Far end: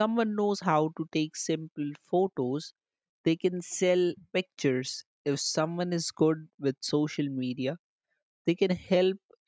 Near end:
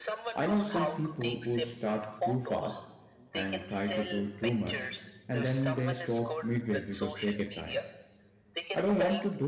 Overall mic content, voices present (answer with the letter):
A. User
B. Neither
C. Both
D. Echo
C